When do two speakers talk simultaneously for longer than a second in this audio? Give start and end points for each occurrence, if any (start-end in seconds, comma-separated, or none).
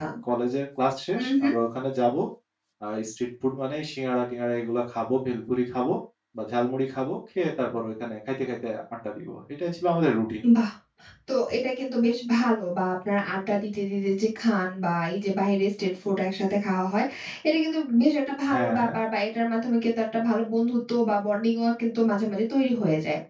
none